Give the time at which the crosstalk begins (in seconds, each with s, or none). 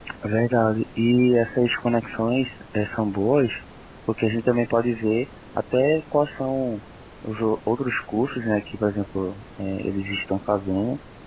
none